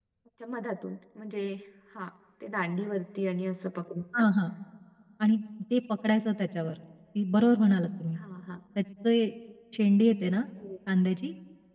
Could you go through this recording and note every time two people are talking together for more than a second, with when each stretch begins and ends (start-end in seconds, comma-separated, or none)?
none